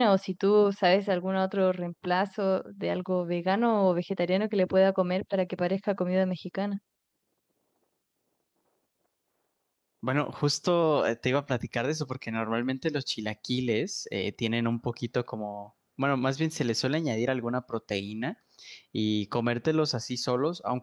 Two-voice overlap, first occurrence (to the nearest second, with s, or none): none